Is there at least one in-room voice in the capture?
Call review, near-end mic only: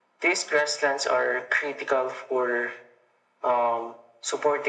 No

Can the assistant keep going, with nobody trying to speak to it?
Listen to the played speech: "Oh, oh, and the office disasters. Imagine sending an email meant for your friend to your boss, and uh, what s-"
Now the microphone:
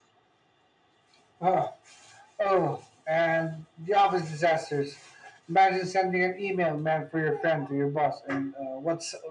Yes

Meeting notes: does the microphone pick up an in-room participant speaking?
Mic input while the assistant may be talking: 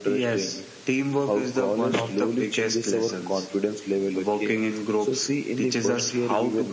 No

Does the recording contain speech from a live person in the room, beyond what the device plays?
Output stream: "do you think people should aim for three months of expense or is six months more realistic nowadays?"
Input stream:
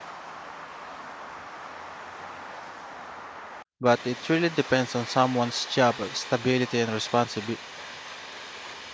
Yes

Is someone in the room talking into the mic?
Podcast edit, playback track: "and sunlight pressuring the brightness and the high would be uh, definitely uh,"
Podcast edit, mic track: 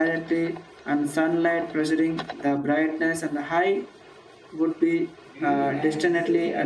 Yes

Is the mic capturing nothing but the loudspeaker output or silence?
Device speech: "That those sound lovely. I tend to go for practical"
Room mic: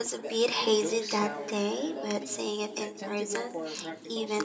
No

